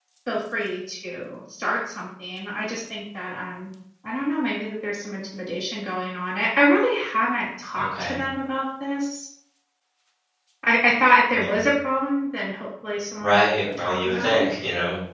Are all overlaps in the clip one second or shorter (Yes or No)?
No